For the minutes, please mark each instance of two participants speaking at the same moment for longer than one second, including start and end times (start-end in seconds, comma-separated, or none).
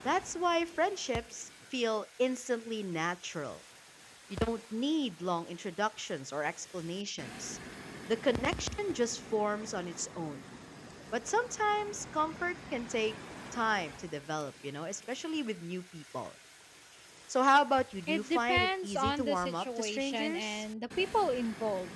18.1-20.6